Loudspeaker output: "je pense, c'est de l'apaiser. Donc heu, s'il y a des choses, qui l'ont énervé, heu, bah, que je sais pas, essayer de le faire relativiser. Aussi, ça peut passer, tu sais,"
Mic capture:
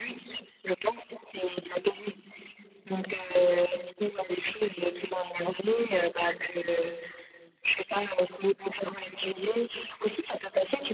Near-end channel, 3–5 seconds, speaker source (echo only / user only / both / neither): echo only